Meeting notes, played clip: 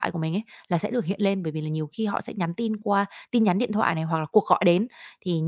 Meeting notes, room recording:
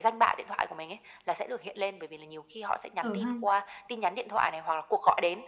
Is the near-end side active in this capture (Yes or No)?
Yes